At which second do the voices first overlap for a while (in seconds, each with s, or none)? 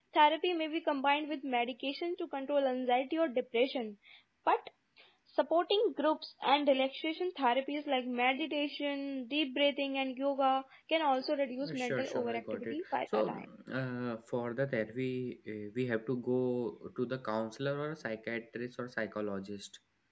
11.6 s